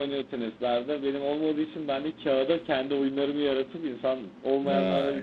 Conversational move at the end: listening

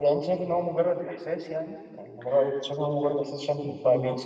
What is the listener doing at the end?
listening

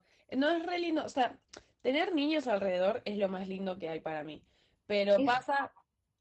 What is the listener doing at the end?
listening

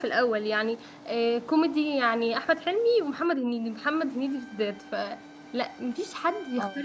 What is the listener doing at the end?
listening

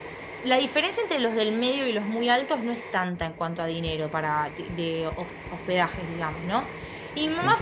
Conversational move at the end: listening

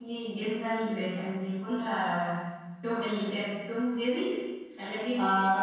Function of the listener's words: listening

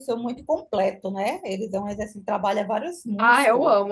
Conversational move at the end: taking over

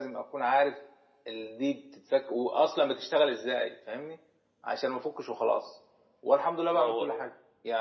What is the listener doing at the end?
listening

